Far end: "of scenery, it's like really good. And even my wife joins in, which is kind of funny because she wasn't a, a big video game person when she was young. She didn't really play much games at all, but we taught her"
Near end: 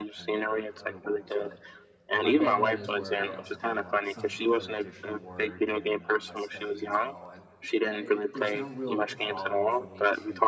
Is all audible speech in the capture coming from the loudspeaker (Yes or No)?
No